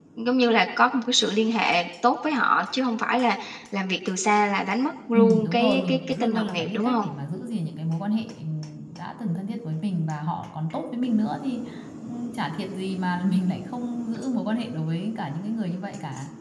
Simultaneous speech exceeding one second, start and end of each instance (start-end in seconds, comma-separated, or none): 5.1-7.1